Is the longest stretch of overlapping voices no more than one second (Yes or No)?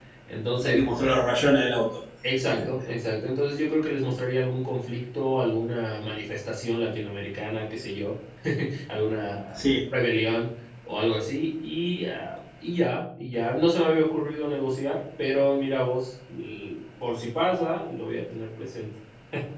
Yes